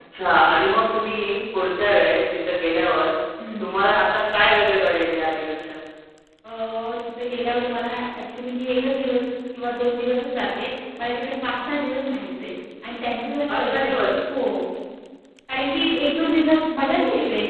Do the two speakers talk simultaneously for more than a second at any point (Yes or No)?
No